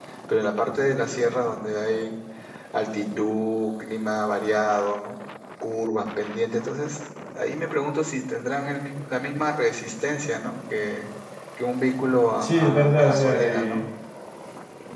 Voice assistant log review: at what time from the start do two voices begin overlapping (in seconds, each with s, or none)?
12.4 s